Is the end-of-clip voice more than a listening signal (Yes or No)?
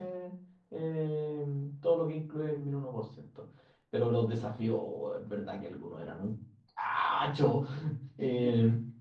Yes